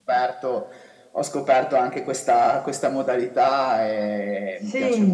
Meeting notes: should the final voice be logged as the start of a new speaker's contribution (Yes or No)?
Yes